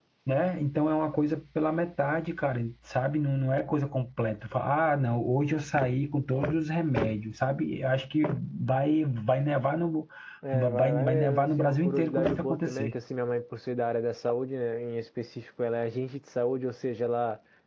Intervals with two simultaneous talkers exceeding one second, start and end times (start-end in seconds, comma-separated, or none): 10.8-12.9